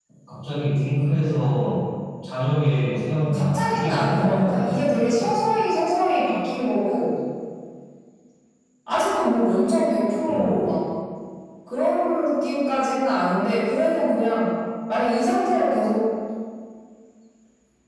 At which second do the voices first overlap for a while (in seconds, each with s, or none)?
3.3 s